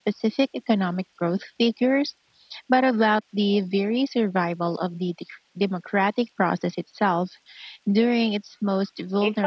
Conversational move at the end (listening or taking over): taking over